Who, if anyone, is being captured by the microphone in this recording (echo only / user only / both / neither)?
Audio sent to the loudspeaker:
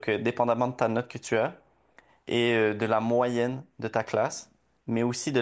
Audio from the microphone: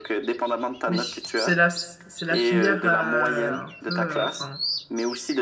both